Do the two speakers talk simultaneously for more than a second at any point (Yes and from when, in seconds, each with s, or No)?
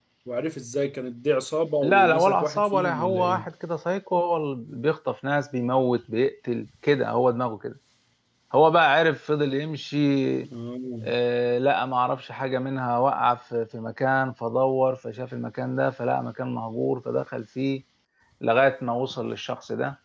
Yes, from 1.8 s